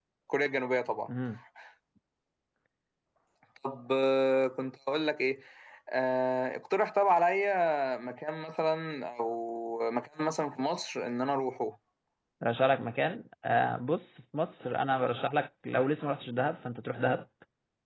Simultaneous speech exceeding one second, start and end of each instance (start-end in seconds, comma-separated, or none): none